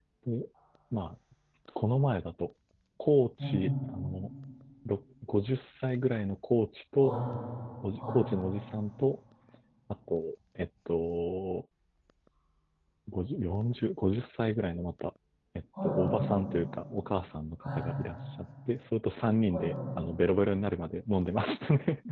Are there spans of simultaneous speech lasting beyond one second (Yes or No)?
No